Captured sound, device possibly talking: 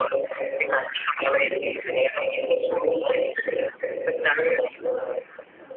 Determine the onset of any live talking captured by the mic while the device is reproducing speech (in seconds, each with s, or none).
none